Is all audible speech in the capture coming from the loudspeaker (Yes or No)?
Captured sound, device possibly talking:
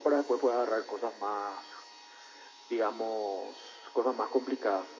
Yes